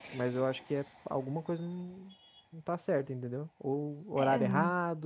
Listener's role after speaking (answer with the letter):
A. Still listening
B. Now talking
A